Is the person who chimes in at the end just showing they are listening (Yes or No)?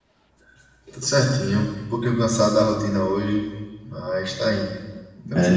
No